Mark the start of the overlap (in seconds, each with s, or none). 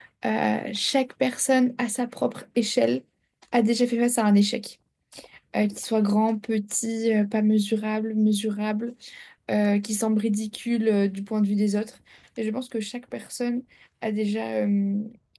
none